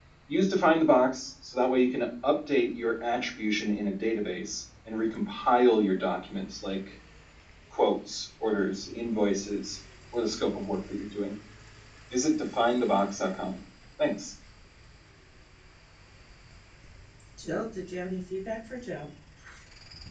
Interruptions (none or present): none